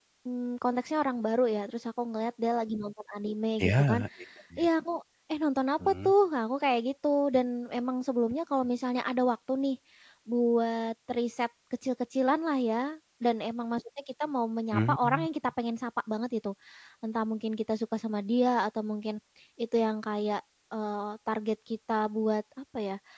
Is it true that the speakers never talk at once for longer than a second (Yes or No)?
Yes